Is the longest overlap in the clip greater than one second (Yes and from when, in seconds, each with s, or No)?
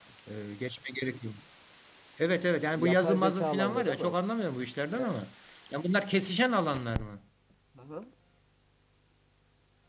Yes, from 2.8 s